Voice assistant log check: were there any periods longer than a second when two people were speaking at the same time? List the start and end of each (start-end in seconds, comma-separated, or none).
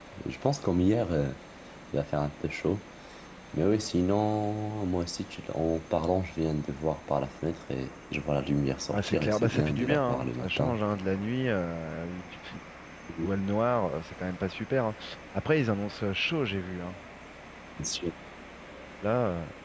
8.9-10.8